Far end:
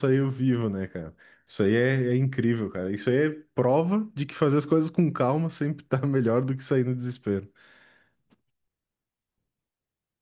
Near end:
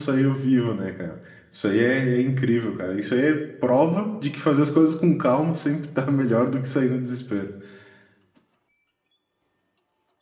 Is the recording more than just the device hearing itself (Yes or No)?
No